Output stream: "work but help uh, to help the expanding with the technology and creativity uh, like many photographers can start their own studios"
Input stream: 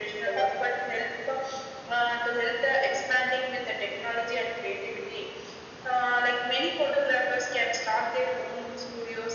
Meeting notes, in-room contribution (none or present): none